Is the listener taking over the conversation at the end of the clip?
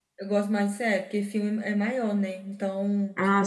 No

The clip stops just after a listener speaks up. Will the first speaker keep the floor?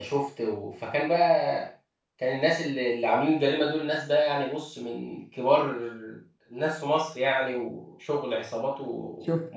No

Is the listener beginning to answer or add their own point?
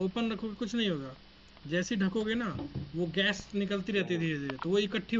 No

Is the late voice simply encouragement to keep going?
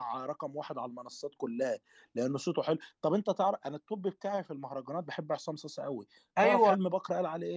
Yes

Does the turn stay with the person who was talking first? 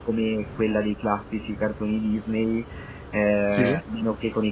Yes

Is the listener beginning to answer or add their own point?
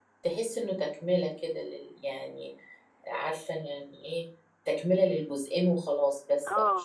Yes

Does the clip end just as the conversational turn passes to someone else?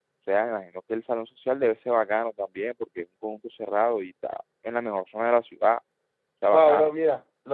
Yes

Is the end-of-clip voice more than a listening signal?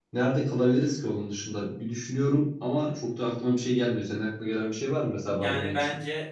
Yes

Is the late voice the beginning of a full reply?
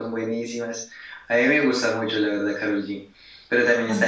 No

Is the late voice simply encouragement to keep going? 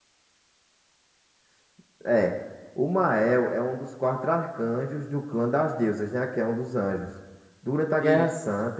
Yes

